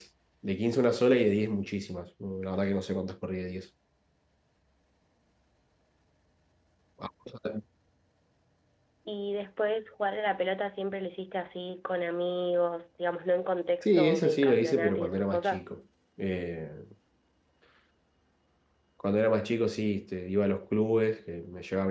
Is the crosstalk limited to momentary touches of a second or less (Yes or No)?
No